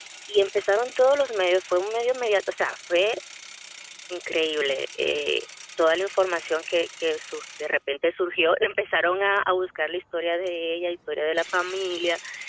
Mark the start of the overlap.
none

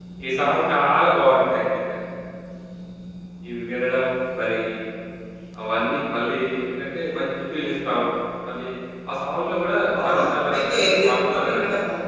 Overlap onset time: 9.9 s

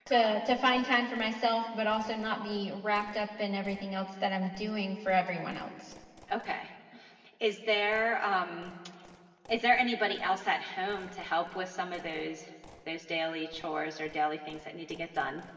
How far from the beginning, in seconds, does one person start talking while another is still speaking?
none

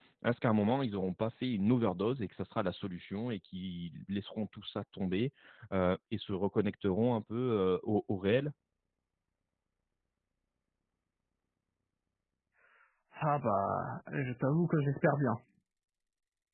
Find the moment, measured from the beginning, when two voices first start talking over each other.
none

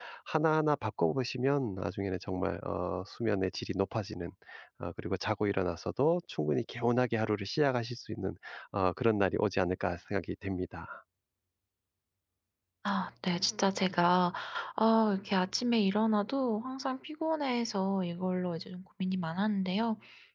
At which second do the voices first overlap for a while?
none

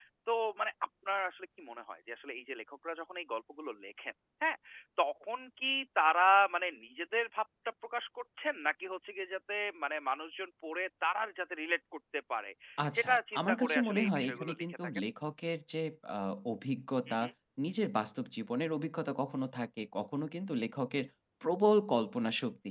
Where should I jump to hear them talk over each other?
12.9 s

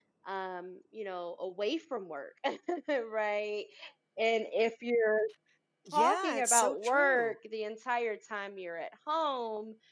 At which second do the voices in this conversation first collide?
5.9 s

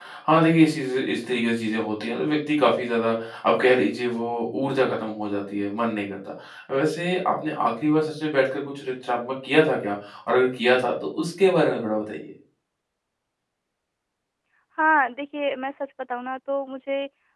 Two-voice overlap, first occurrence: none

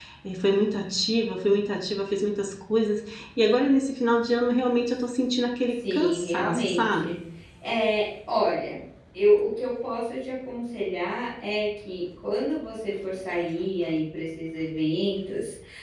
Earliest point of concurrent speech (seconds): 5.8 s

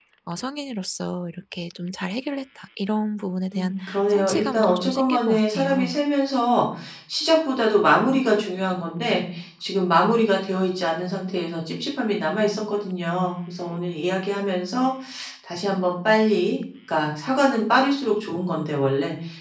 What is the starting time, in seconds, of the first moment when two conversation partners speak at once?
3.5 s

